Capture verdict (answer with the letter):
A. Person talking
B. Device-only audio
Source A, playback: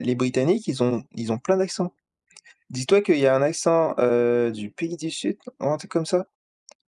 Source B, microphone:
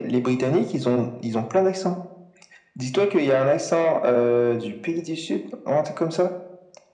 B